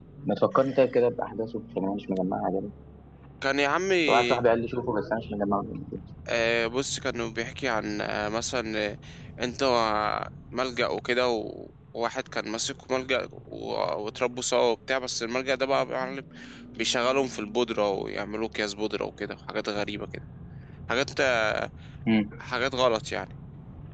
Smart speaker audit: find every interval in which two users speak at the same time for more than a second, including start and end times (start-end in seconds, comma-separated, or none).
none